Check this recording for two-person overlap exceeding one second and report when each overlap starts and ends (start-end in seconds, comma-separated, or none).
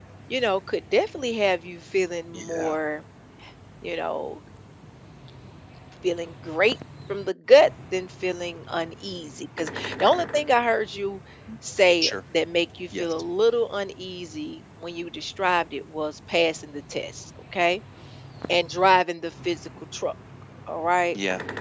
none